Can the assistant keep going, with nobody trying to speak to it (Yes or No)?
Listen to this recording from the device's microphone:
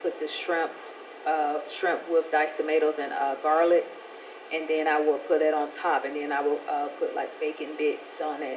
Yes